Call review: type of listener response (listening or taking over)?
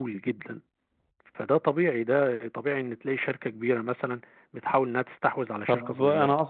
taking over